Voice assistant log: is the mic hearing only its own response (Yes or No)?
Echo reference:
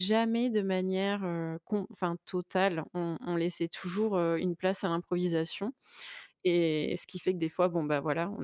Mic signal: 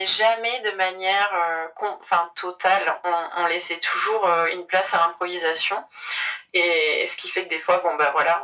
Yes